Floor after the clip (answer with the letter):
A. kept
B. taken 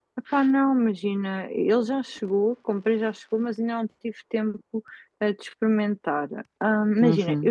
A